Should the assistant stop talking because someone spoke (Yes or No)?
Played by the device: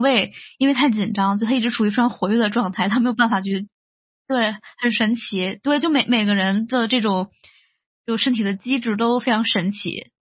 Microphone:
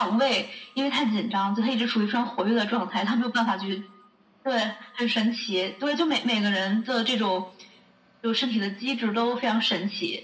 No